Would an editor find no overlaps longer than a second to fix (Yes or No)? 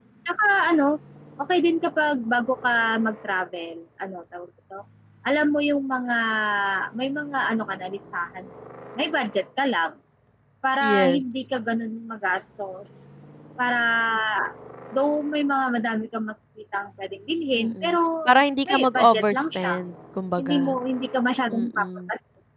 No